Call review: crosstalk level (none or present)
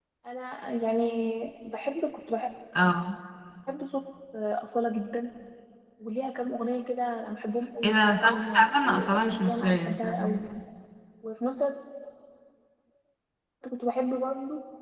present